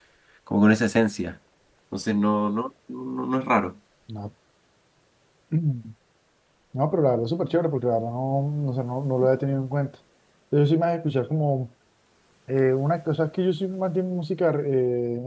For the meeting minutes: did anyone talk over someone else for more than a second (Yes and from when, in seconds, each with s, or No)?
No